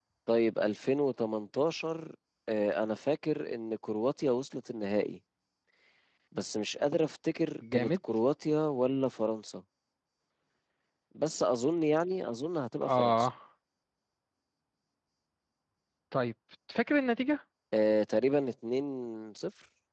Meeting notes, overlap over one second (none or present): none